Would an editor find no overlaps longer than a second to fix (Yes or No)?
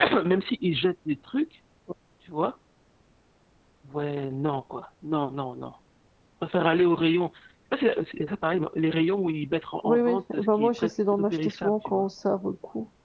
No